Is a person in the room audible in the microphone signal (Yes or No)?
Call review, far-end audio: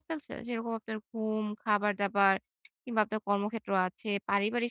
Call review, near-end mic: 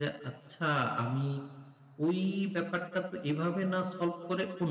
Yes